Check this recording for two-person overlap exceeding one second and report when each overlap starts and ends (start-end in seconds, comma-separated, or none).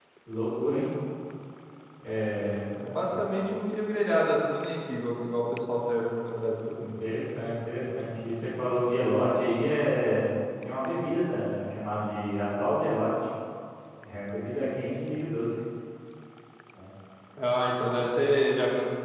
none